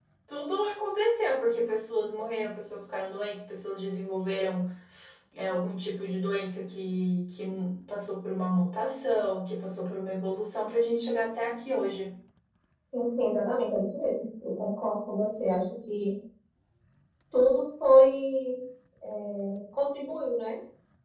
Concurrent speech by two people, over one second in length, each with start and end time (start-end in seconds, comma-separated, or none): none